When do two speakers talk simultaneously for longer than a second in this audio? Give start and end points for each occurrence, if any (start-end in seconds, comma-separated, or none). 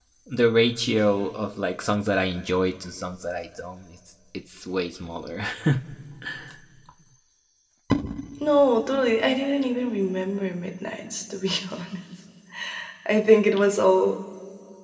none